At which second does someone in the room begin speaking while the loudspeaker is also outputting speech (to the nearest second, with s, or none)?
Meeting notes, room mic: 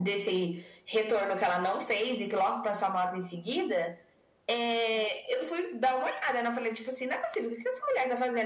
none